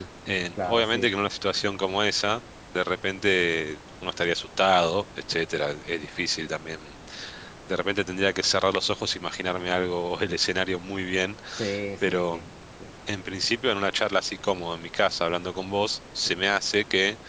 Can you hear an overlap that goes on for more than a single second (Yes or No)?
No